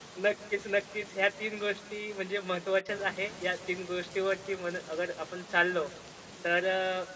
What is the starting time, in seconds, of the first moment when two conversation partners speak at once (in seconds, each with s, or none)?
none